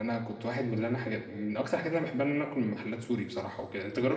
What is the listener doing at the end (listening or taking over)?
taking over